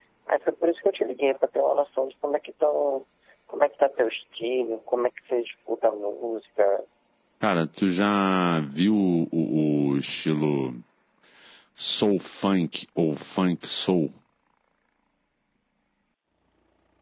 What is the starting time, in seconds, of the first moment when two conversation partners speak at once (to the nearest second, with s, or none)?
none